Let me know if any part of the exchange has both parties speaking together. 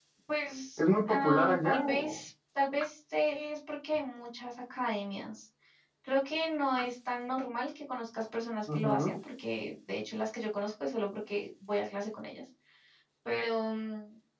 Yes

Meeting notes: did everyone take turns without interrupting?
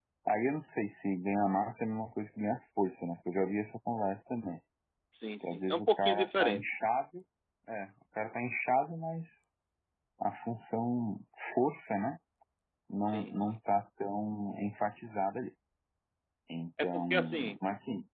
No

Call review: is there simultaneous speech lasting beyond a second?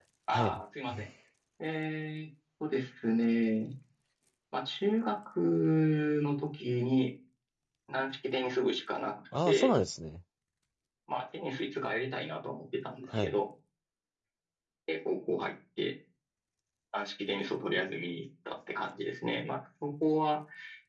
No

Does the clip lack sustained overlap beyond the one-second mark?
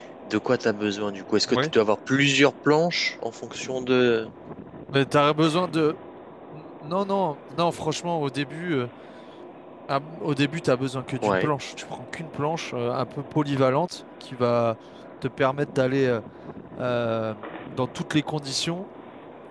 Yes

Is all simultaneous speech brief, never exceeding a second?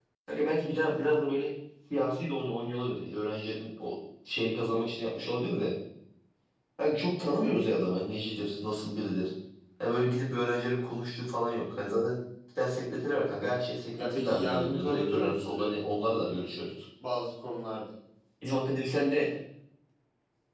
No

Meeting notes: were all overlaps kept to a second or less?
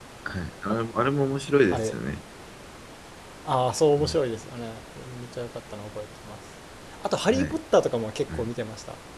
Yes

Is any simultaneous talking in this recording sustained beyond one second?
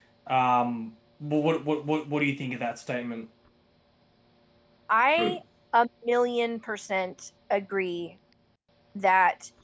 No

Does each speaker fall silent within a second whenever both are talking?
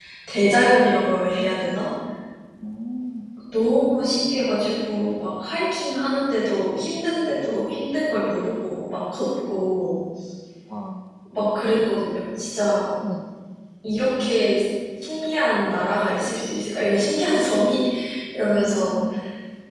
Yes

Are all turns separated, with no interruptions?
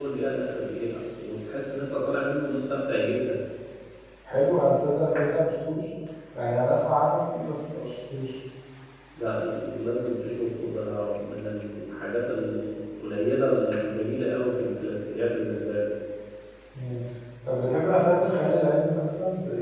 Yes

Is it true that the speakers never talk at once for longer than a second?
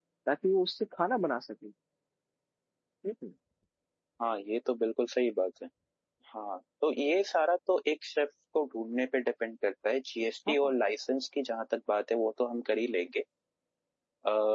Yes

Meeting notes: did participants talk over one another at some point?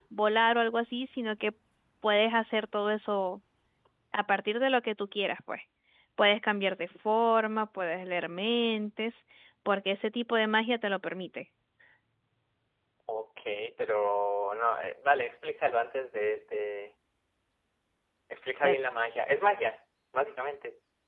No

